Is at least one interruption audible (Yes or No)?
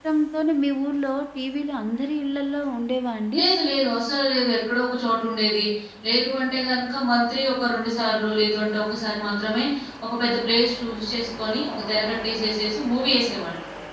No